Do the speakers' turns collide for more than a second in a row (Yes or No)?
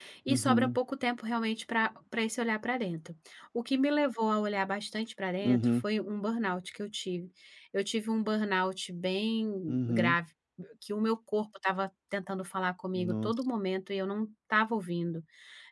No